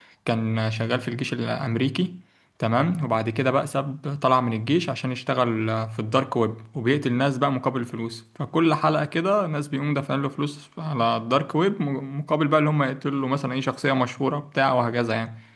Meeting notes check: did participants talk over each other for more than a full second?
No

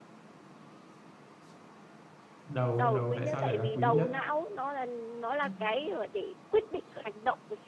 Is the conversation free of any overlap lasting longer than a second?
No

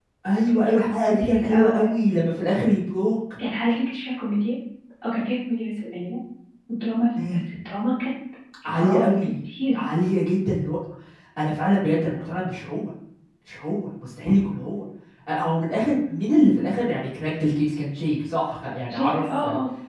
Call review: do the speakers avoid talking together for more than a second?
No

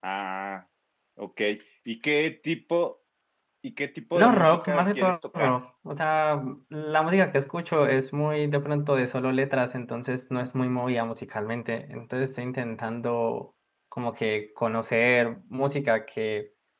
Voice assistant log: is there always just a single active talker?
No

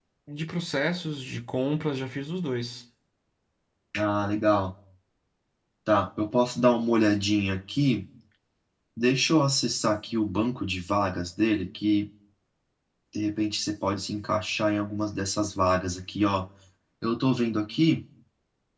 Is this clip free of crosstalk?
Yes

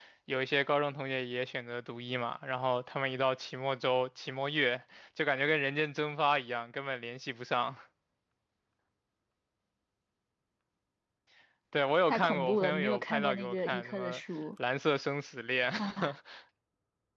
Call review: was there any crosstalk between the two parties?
Yes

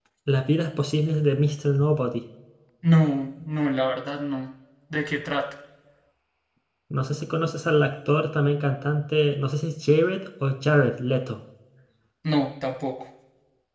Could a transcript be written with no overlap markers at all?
Yes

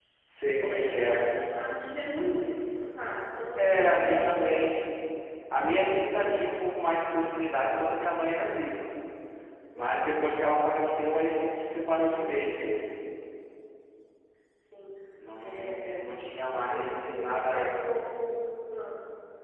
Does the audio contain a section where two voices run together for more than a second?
Yes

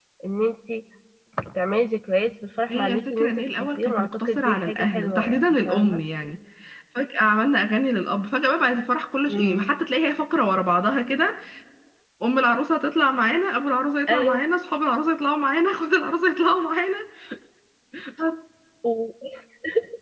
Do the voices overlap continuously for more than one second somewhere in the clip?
Yes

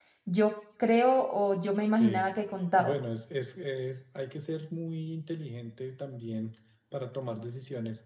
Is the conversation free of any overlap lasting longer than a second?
Yes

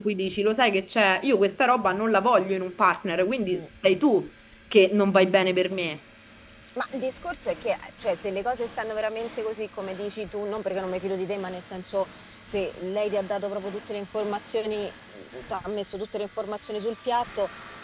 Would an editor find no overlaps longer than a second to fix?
Yes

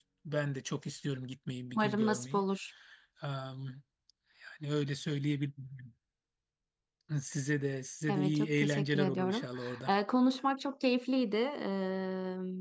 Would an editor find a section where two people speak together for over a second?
Yes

